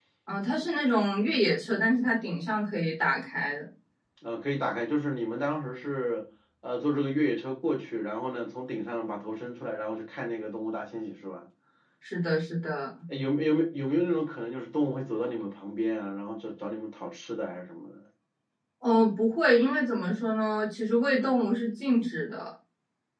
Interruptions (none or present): none